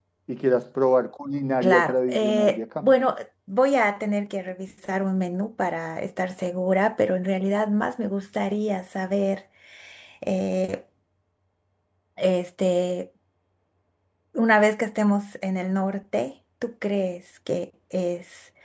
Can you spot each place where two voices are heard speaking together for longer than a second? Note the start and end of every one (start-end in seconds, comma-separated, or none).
1.6-2.9